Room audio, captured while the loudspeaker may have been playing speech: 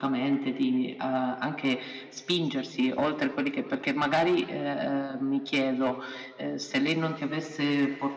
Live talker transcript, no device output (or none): none